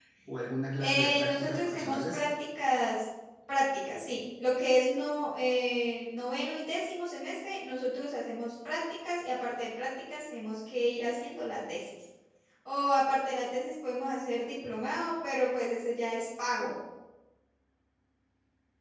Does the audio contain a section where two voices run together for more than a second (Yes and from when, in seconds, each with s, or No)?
Yes, from 0.8 s